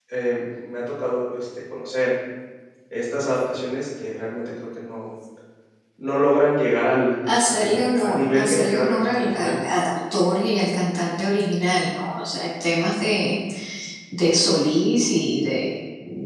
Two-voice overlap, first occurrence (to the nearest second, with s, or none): 7 s